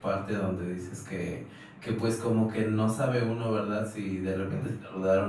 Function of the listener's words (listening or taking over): listening